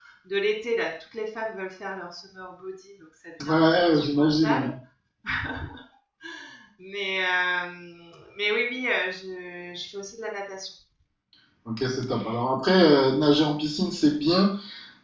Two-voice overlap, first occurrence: 3.4 s

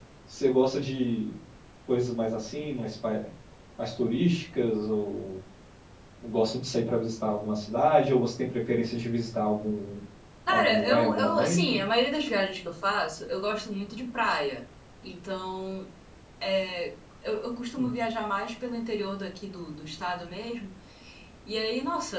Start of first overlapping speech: 10.5 s

